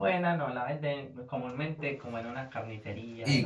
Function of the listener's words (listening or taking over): taking over